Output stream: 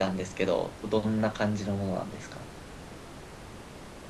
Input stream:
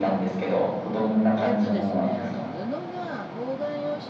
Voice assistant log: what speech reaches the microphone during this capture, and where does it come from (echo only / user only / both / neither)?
both